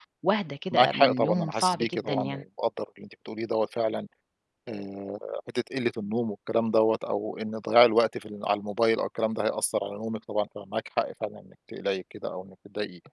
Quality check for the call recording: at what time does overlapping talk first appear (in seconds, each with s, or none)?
0.7 s